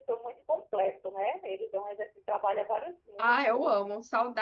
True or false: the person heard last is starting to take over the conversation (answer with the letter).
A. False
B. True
B